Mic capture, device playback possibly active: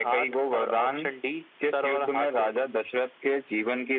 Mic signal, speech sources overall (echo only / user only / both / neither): echo only